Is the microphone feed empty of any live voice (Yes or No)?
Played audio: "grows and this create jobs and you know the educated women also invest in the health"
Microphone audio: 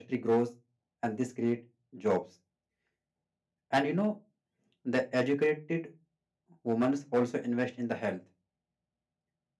Yes